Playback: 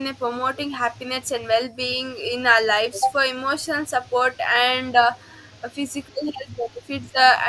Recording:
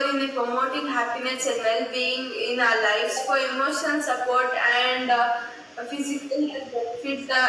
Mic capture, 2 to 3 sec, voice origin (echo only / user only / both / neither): echo only